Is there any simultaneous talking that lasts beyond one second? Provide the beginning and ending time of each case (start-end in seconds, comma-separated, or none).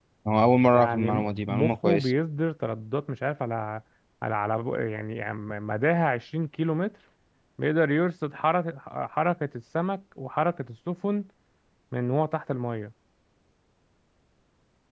0.7-2.1